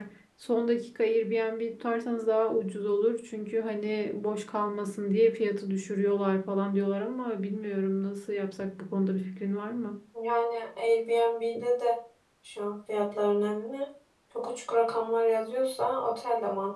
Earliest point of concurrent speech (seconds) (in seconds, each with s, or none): none